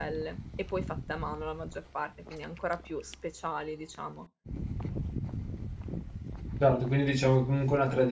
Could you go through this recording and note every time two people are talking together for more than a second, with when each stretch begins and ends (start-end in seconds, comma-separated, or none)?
none